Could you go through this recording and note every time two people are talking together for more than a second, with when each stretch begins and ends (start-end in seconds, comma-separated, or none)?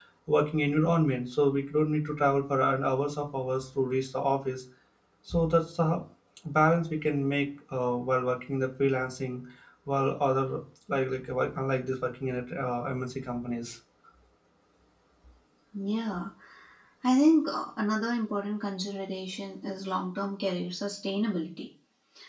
none